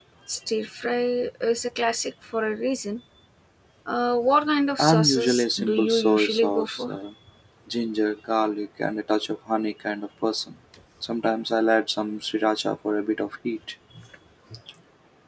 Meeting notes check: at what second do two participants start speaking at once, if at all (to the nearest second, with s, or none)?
5 s